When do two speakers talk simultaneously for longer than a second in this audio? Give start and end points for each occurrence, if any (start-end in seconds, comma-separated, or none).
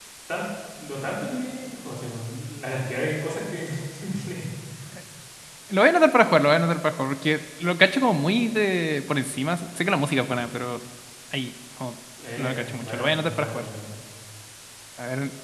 12.4-13.7